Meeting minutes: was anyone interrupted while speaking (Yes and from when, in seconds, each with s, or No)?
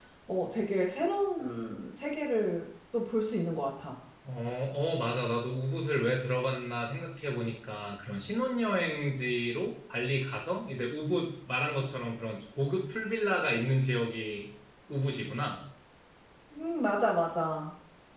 No